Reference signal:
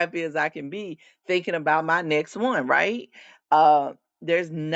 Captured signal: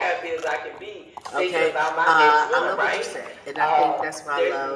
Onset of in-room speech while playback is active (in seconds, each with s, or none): 1.3 s